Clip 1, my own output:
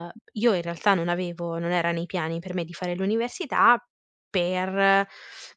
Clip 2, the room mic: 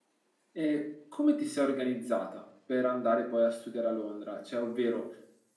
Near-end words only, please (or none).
ehm, come ti sei organizzata per andare poi a studiare a Londra? Cioè, ovvero,